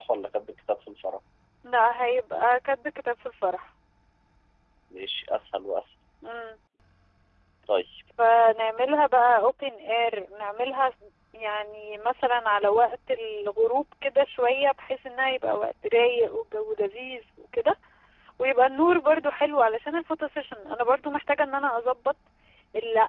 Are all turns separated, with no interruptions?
Yes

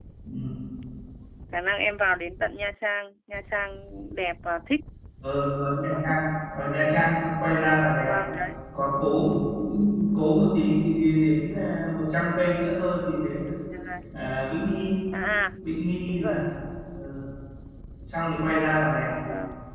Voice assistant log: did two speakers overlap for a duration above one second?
No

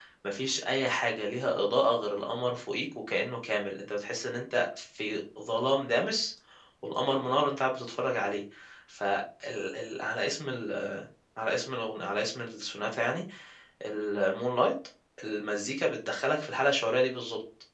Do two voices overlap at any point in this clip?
No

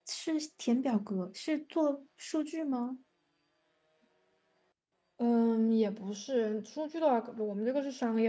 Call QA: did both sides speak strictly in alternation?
Yes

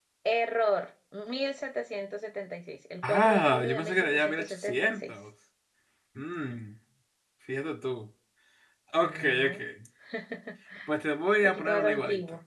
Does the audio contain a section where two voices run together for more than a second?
Yes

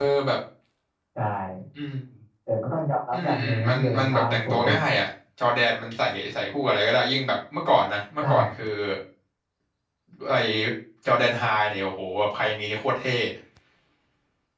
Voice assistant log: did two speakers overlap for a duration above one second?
Yes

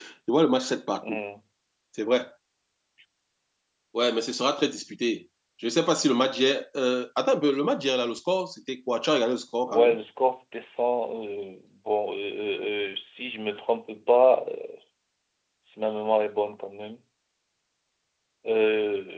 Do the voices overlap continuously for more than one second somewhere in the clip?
No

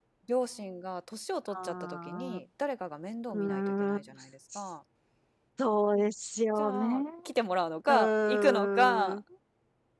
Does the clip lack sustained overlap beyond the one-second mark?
No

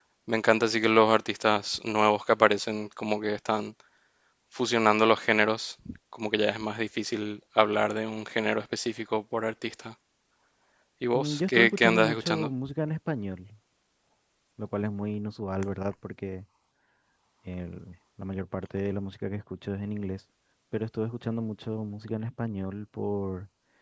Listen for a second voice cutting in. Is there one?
Yes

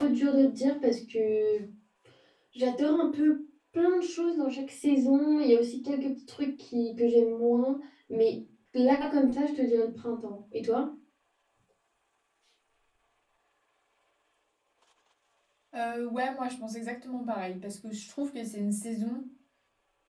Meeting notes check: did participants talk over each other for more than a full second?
No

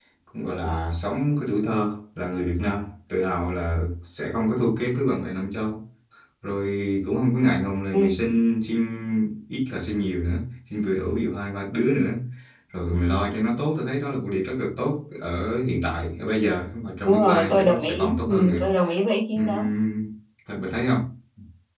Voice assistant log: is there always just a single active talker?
No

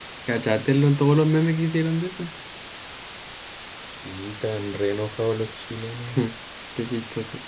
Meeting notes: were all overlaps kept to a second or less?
Yes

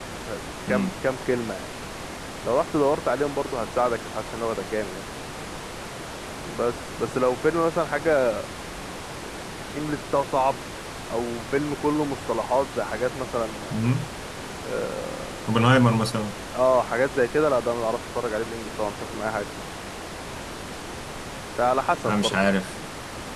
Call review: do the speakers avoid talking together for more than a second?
Yes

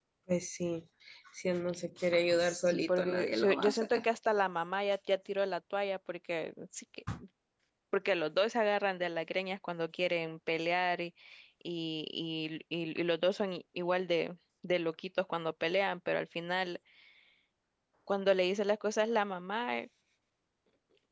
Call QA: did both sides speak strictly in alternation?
No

